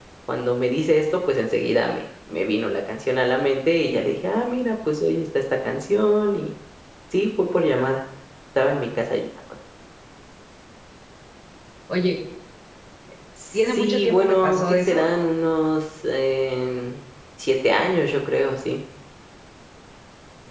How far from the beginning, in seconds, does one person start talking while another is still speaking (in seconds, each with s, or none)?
13.5 s